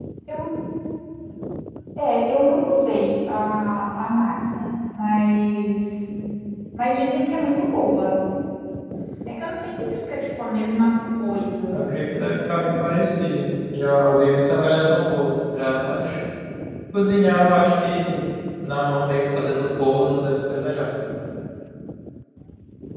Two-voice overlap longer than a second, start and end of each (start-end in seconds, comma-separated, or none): 11.7-13.1